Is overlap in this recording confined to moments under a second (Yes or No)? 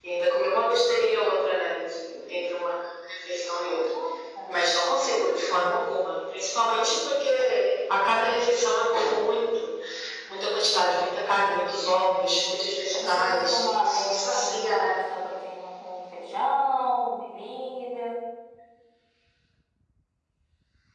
No